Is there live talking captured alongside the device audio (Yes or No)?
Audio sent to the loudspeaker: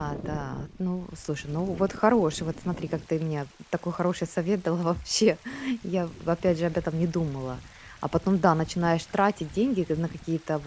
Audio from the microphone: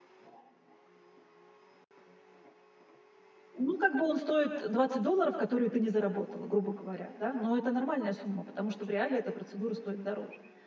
Yes